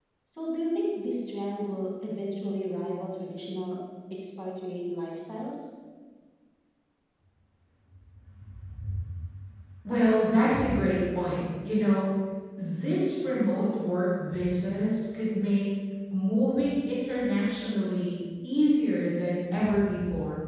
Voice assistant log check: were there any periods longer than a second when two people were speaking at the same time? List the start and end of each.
none

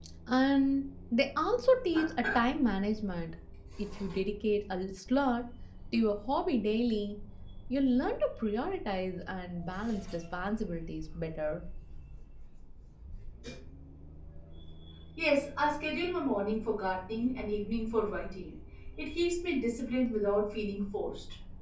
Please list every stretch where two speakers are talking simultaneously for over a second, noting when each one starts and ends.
none

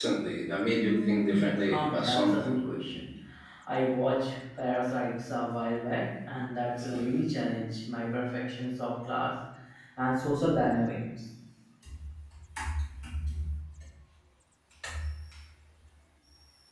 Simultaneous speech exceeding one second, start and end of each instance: 0.8-2.5

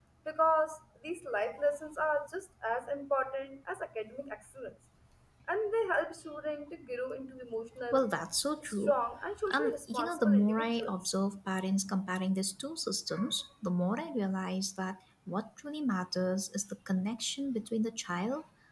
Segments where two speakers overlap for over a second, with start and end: 9.5-10.9

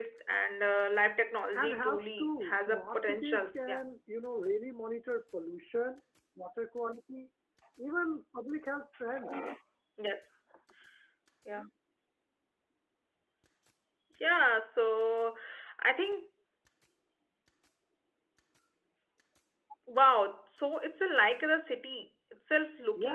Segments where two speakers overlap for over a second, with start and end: 1.5-3.8

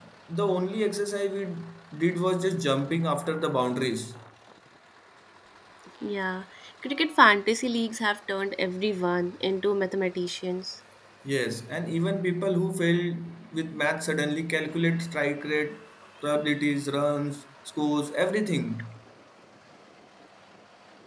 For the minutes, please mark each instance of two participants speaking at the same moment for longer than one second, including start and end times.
none

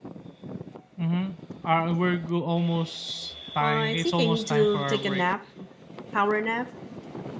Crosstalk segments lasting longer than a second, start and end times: 3.6-5.2

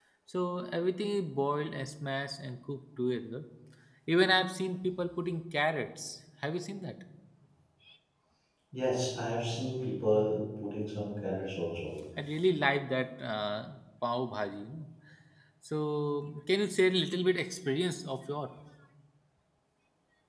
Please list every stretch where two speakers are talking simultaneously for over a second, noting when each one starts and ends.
none

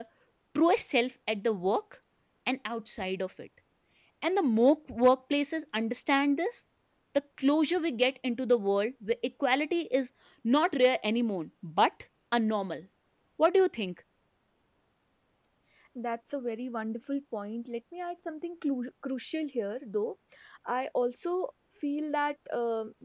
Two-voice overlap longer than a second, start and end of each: none

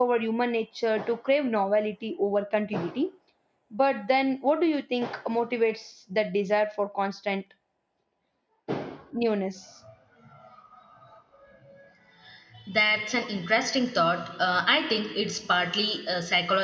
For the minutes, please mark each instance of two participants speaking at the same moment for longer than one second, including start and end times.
none

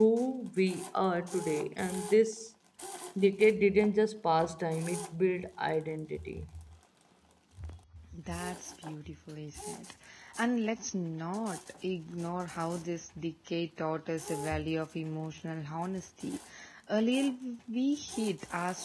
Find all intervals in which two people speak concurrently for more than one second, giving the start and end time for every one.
none

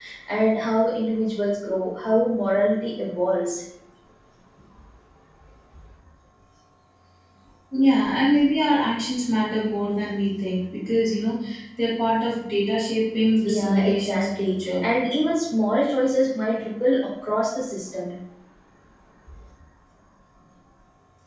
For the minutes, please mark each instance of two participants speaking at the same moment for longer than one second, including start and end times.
13.5-14.8

